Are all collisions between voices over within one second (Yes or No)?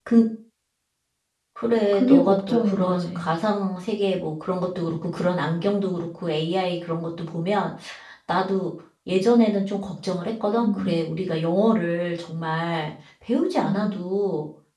No